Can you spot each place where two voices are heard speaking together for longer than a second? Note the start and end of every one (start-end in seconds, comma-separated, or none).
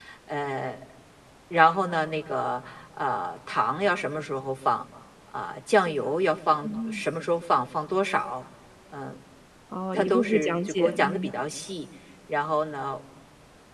9.9-11.3